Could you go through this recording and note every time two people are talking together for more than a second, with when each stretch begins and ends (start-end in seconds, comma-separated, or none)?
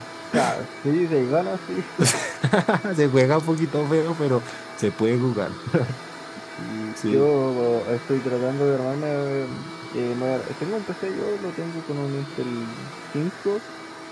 none